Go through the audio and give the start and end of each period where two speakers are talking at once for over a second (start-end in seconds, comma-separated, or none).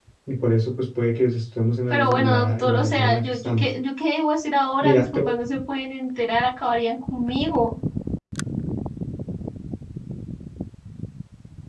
1.9-3.7